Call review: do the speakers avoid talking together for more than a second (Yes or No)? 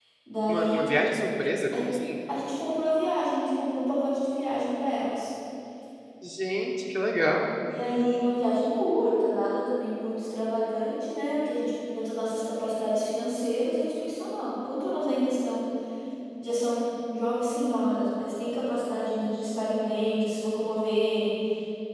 Yes